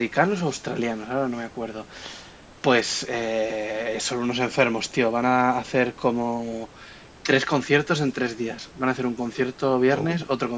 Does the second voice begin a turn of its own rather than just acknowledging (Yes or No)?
No